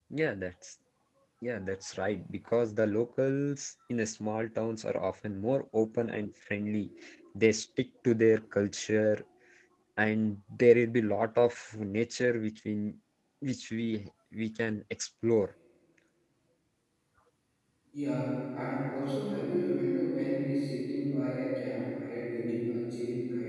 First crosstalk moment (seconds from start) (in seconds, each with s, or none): none